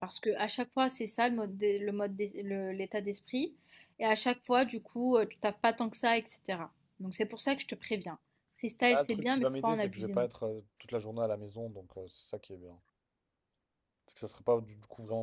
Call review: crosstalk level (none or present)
present